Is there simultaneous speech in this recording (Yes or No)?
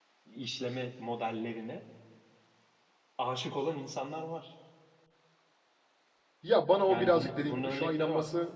Yes